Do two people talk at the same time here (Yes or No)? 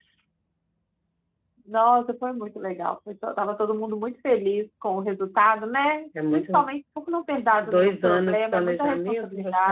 Yes